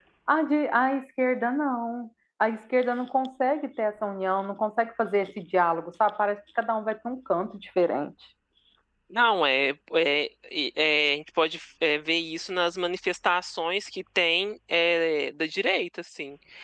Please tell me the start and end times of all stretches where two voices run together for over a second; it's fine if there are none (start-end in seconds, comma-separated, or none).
none